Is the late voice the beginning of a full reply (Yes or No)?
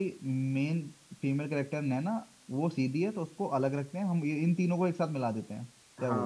Yes